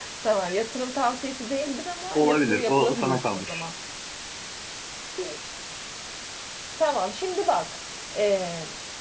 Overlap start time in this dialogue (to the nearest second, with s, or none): 2 s